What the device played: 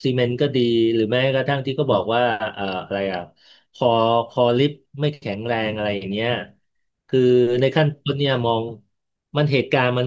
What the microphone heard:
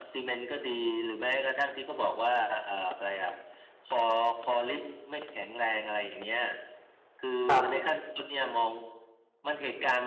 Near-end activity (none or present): present